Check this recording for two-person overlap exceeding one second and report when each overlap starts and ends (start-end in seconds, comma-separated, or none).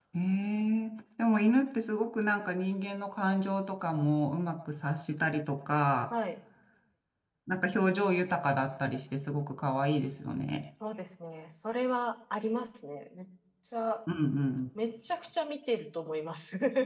none